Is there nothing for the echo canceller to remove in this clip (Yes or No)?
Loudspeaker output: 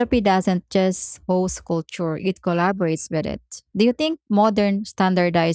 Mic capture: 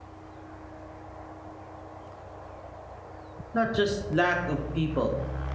Yes